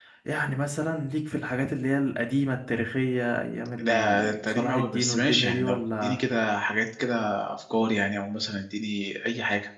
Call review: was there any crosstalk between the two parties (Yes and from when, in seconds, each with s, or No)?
Yes, from 3.8 s